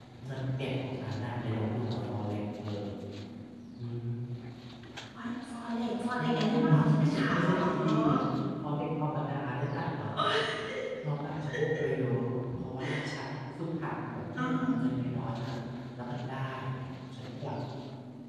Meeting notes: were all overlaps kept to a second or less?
No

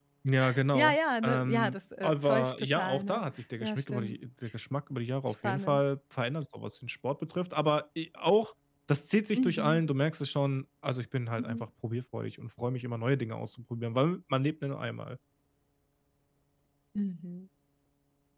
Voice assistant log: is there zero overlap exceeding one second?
No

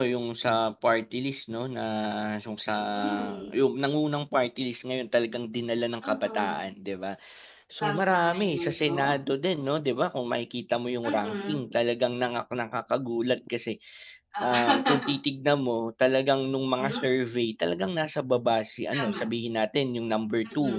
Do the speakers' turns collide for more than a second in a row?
Yes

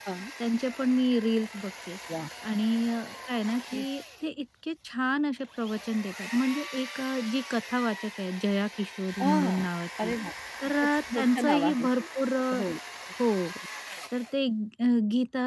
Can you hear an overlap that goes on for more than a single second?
Yes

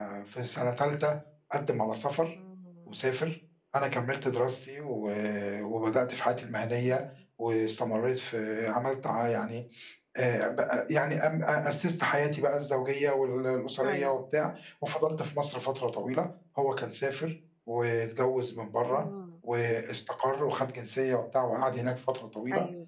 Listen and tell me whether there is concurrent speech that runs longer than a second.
No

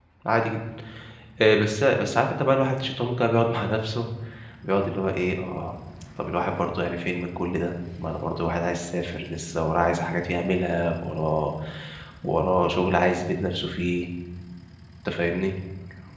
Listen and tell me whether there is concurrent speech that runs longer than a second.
No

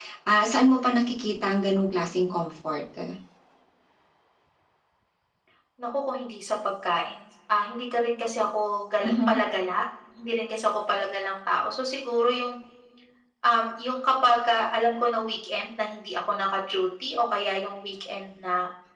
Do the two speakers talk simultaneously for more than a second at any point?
No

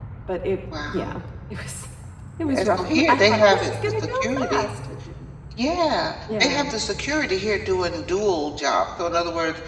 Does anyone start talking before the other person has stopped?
Yes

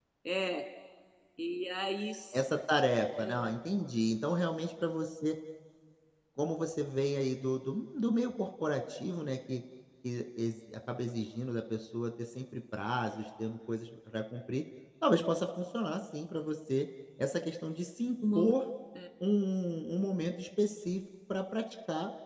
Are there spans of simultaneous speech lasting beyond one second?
No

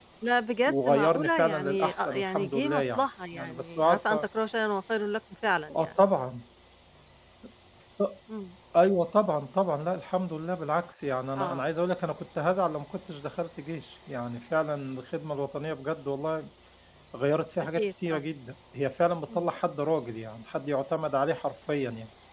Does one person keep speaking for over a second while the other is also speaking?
Yes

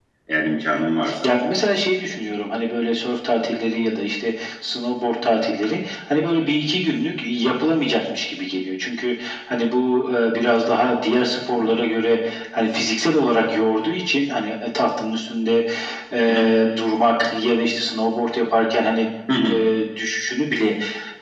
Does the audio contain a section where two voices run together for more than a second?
No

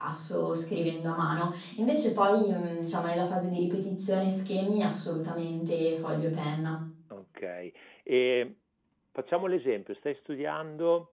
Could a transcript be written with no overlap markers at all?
Yes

